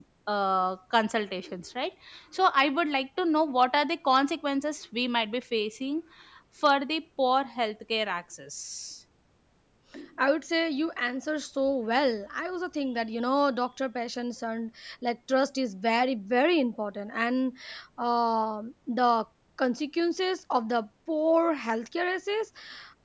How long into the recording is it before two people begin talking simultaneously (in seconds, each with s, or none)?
none